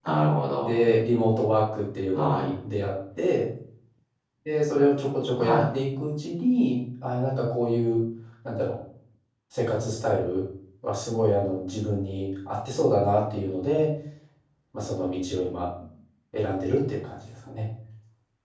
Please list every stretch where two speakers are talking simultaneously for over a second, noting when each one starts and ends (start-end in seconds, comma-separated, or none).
none